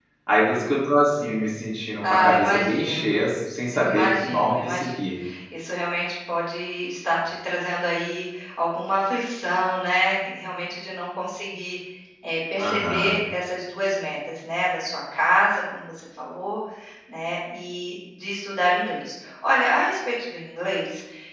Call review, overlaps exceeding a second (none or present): present